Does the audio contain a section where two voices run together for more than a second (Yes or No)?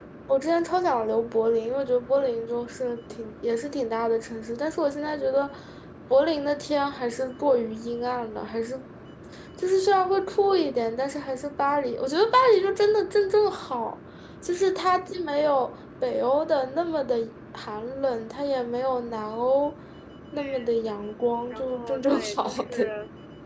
Yes